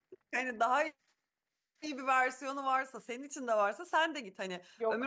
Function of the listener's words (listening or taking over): listening